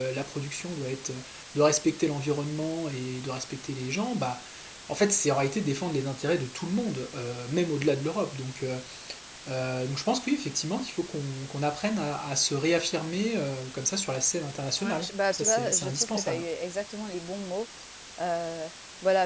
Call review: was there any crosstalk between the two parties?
Yes, from 14.8 s

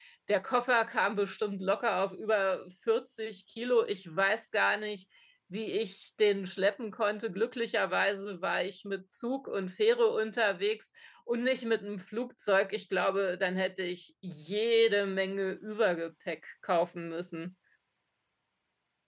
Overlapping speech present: No

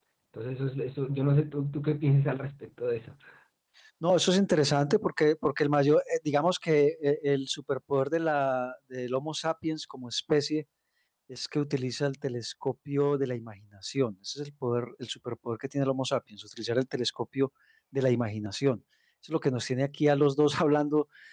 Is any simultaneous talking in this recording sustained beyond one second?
No

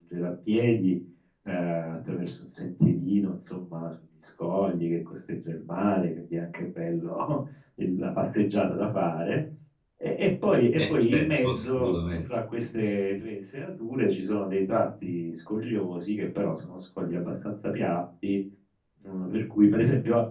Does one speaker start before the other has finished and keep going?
Yes, from 10.8 s

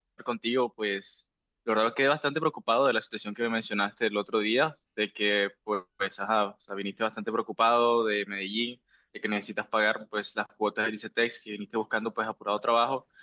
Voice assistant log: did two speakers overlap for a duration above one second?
No

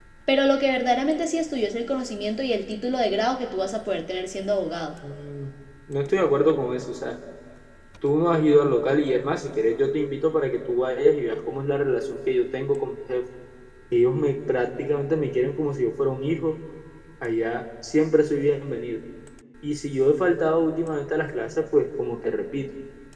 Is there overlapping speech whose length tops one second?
No

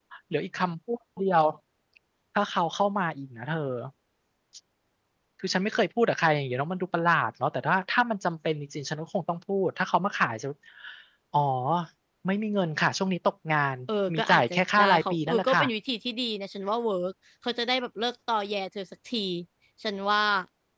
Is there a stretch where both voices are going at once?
Yes, from 14.1 s

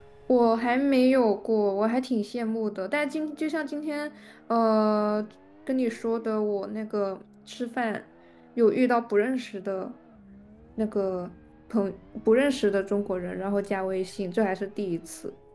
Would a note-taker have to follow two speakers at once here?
No

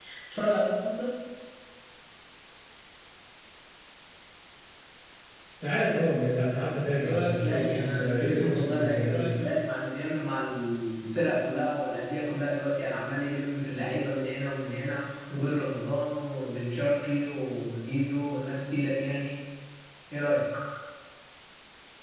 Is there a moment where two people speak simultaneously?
Yes, from 7.0 s

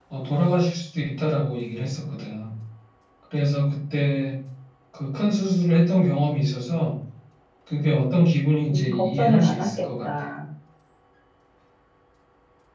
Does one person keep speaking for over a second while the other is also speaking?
Yes, from 8.7 s

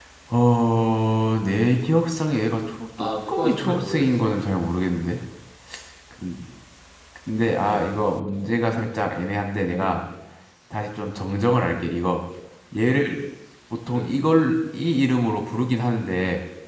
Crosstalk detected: Yes, from 3.0 s

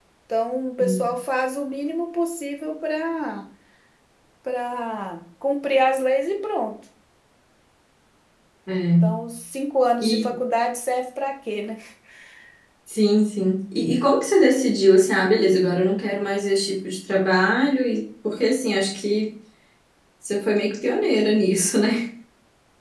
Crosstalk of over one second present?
No

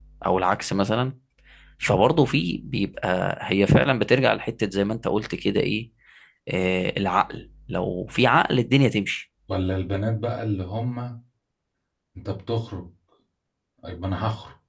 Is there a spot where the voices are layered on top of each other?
No

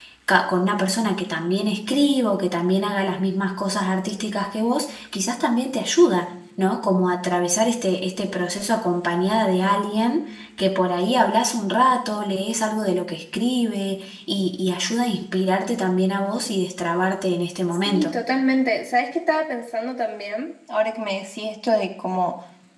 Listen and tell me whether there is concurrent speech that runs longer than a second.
No

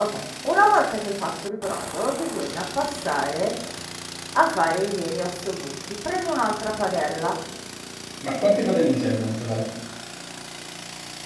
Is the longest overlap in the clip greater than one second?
No

